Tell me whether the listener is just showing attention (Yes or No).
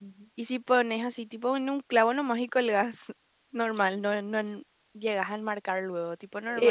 No